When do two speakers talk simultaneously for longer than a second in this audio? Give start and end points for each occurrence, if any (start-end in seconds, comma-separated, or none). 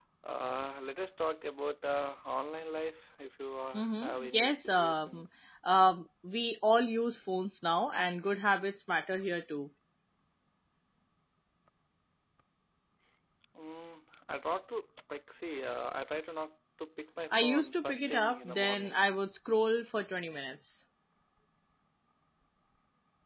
3.8-5.2, 17.4-19.1